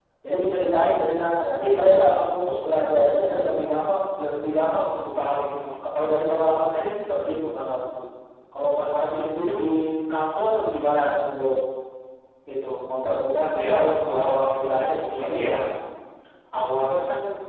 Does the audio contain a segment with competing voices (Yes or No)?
Yes